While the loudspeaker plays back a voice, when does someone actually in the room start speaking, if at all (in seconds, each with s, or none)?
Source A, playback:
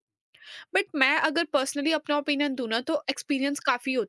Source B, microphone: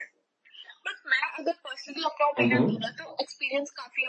2.4 s